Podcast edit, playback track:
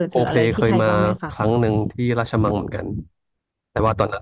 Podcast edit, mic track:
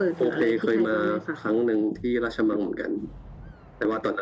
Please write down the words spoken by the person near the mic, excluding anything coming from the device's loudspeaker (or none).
none